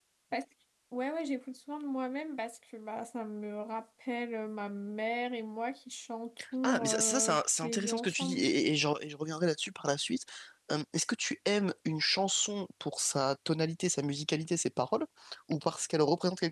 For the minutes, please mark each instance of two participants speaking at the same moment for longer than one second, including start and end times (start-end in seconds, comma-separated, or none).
6.6-8.4